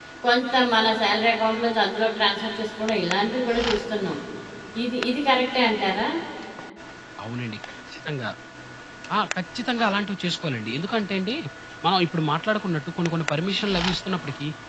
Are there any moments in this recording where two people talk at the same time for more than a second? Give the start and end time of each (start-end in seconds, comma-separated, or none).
none